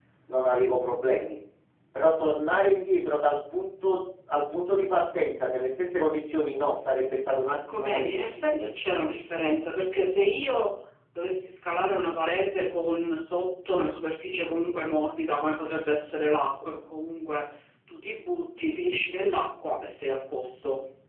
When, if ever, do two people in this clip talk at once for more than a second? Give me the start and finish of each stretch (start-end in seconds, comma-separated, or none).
7.5-8.7